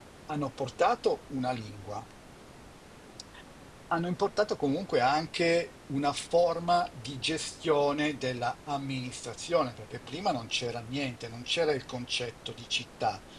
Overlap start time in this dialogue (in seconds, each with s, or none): none